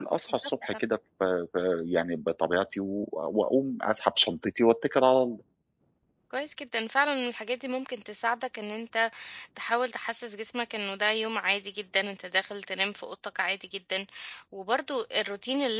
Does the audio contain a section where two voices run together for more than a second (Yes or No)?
No